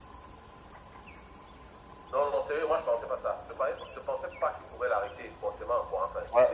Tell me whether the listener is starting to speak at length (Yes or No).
Yes